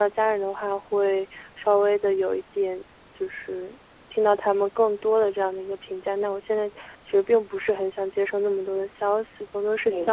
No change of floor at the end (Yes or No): Yes